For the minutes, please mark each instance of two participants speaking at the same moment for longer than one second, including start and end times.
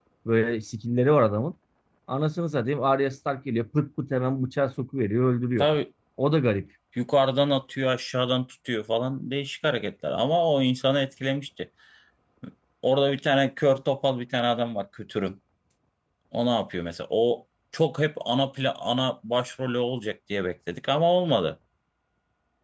none

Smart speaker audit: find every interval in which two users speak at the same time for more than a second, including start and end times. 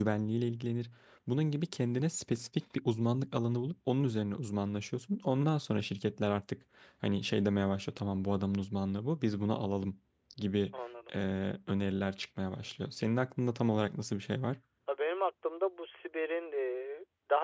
none

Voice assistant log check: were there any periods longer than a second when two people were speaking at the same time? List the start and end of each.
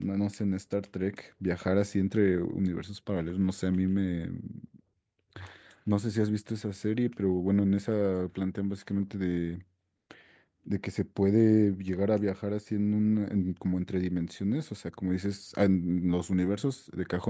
none

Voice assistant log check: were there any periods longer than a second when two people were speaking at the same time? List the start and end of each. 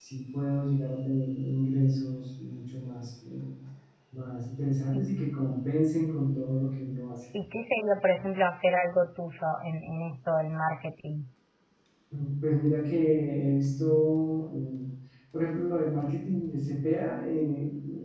none

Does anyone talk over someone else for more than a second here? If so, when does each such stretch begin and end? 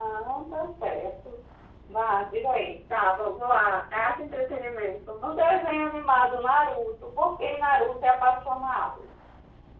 none

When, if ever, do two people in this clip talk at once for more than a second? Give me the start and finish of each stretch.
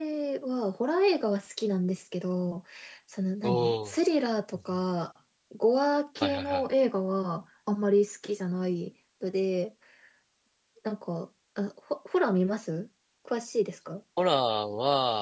none

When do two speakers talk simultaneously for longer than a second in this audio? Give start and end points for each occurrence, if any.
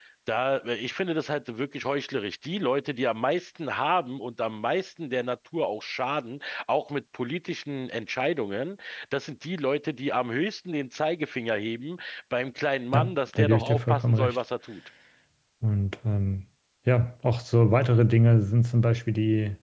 12.9-14.4

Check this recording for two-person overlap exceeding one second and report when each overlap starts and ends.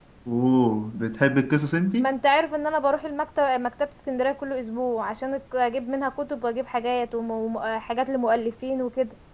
none

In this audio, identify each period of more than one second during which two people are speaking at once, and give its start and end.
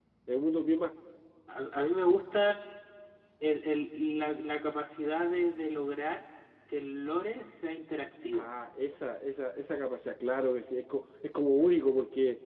none

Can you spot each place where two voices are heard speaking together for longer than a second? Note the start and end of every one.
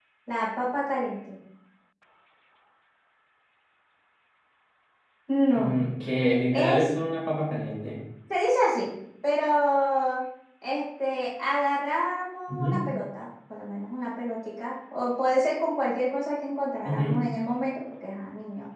none

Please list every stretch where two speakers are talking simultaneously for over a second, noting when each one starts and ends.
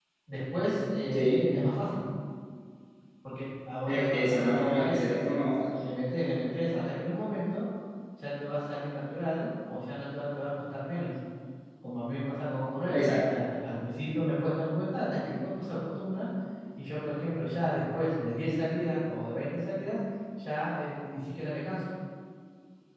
3.9-5.7

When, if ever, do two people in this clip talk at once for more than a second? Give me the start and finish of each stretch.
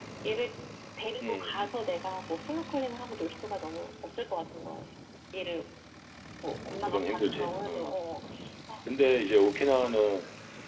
6.6-7.9

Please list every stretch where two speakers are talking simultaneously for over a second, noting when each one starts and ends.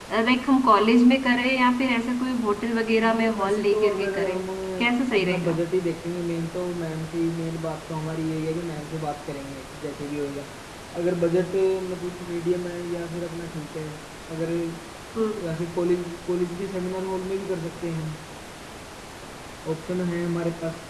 3.1-4.4

